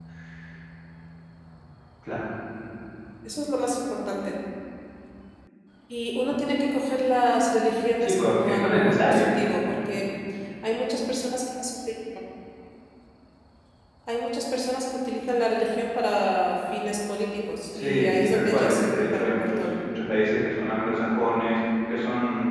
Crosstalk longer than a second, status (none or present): present